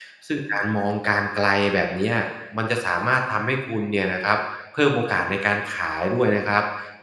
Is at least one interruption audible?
No

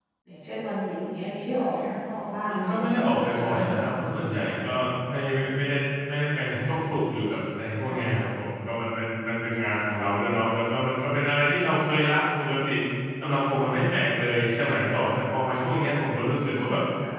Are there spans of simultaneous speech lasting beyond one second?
Yes, from 2.4 s

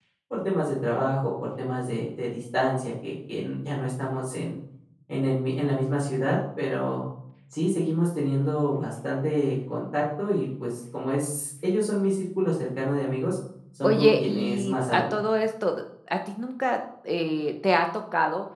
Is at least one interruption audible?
Yes, from 13.8 s

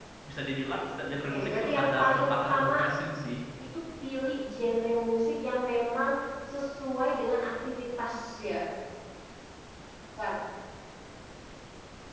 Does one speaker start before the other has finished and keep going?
Yes, from 1.3 s

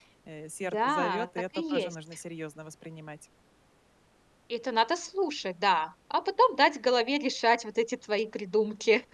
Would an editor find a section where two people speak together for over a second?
Yes, from 0.6 s

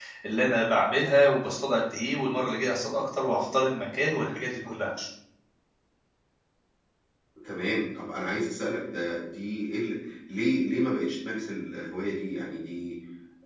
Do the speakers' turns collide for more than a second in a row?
No

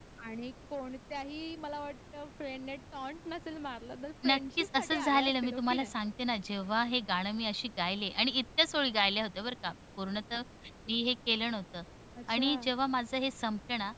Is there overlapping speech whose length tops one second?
Yes, from 4.2 s

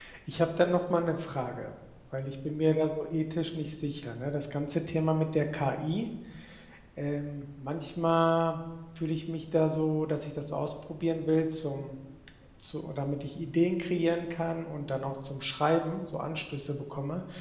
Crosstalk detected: No

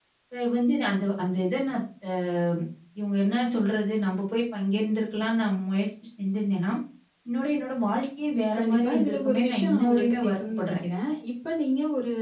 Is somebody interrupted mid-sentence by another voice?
Yes, from 8.5 s

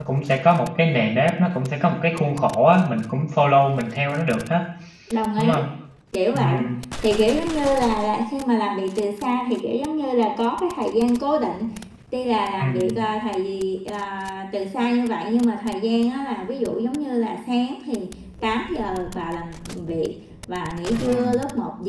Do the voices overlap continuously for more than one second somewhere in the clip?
No

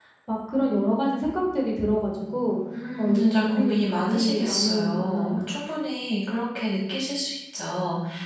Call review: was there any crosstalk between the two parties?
Yes, from 3.0 s

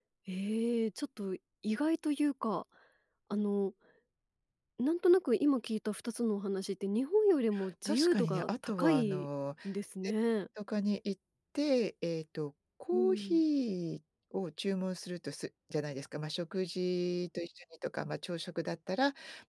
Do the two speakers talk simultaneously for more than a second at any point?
Yes, from 7.8 s

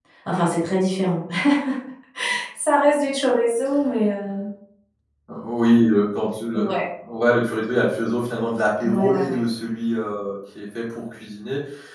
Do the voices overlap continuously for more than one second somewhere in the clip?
No

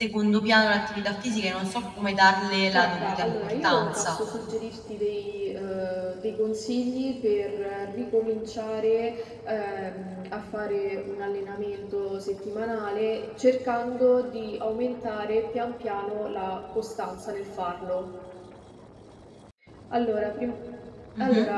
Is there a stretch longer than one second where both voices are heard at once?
Yes, from 2.7 s

